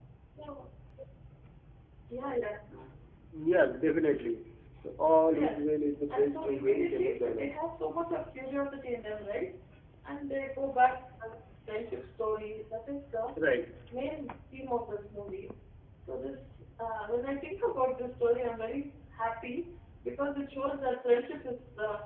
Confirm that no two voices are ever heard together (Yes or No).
No